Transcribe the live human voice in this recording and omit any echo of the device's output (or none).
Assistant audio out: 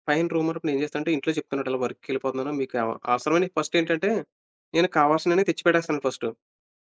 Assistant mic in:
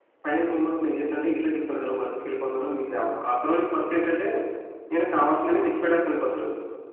none